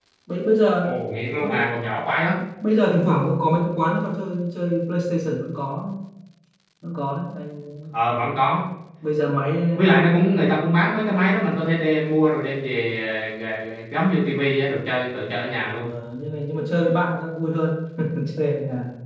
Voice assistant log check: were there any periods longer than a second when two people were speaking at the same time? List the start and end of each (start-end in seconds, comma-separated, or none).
none